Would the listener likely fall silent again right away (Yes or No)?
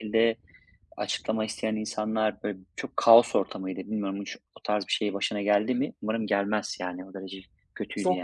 No